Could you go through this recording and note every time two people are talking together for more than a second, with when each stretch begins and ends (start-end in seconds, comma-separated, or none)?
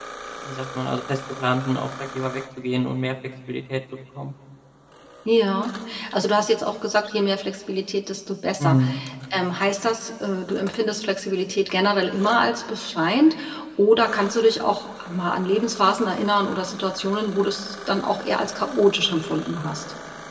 none